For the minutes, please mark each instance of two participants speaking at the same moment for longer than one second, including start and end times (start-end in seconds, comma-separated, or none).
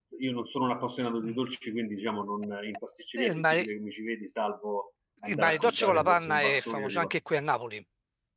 5.2-7.0